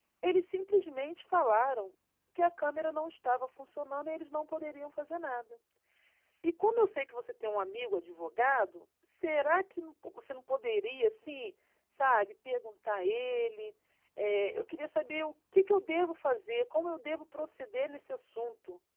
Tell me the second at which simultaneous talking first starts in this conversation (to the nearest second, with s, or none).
none